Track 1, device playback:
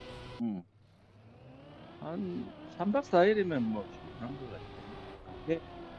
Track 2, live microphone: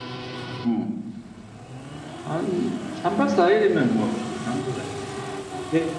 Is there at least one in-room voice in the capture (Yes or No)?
No